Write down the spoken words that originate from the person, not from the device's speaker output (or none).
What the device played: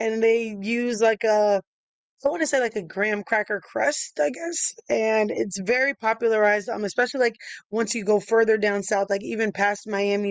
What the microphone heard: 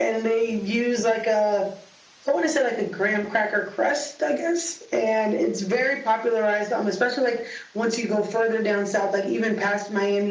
none